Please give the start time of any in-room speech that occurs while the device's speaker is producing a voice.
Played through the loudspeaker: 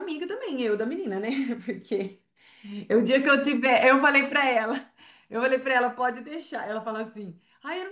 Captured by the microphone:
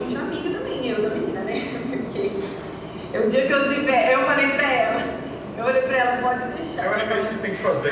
6.8 s

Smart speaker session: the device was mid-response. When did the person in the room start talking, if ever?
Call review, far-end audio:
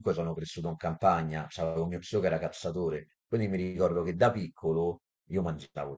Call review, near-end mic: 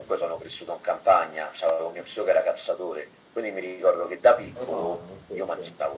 4.5 s

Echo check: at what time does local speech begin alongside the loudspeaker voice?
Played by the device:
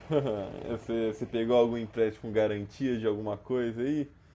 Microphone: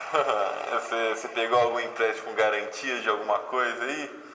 none

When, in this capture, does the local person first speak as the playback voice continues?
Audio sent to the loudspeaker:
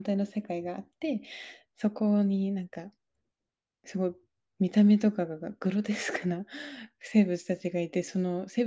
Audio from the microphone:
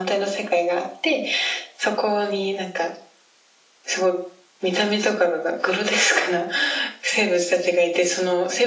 none

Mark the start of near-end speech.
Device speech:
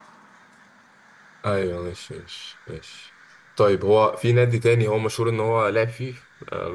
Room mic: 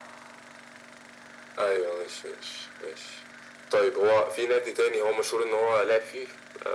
none

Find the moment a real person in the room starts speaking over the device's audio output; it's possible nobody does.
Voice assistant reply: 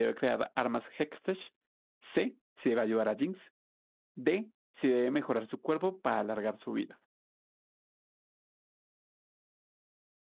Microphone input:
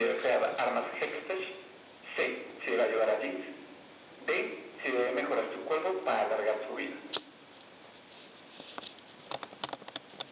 none

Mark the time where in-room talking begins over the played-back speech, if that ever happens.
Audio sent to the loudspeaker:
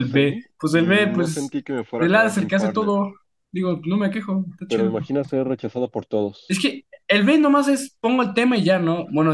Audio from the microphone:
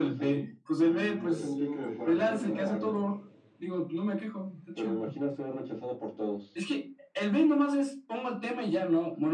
1.3 s

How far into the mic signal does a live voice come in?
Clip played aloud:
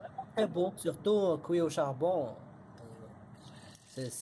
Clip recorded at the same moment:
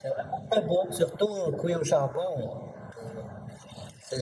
none

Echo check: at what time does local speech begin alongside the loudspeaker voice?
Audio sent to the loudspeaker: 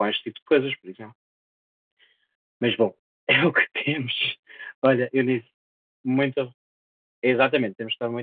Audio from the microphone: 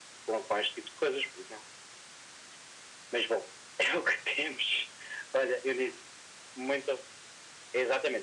none

